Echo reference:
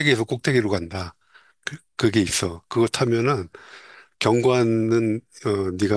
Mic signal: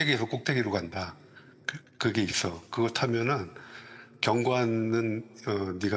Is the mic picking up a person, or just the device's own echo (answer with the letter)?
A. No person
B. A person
A